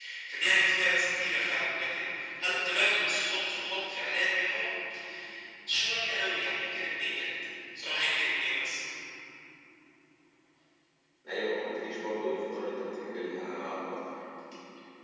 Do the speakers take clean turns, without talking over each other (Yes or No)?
Yes